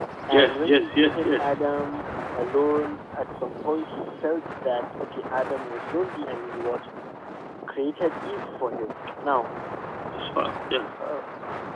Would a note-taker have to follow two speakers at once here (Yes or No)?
Yes